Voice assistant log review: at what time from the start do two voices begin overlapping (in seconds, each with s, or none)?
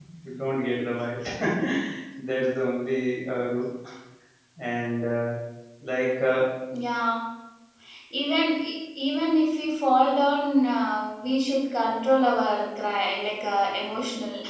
none